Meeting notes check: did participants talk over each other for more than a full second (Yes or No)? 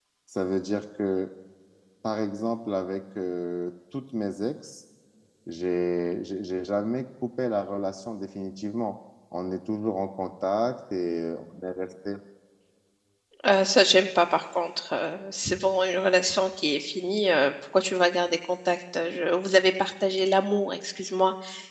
No